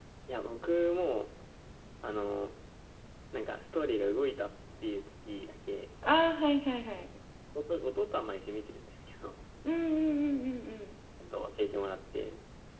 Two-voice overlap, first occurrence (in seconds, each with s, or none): none